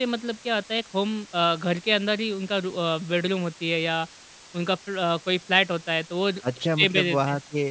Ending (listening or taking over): taking over